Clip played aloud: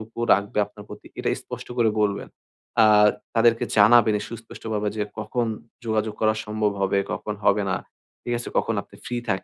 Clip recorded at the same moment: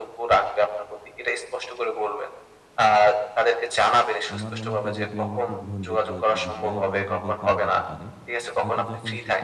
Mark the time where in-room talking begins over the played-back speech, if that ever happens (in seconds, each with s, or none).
4.3 s